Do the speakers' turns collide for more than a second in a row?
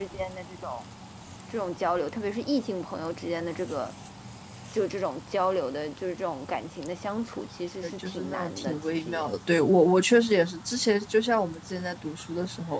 Yes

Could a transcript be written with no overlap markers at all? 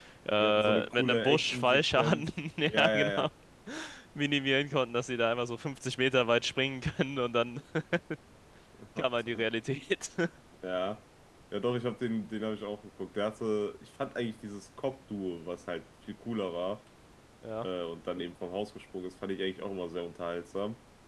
No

